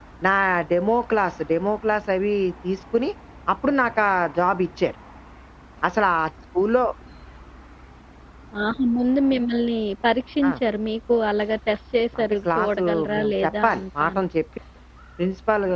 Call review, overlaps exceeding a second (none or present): present